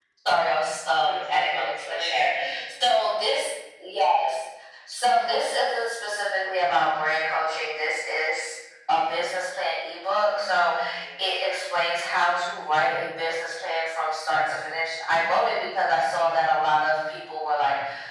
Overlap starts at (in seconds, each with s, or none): 1.0 s